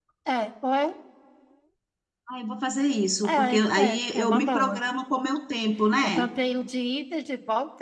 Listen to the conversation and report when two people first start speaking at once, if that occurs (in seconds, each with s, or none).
3.2 s